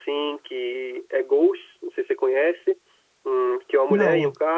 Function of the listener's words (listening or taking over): listening